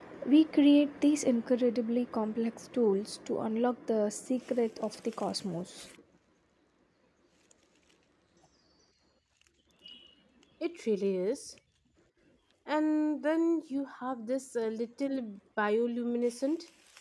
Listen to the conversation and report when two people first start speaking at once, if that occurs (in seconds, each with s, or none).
none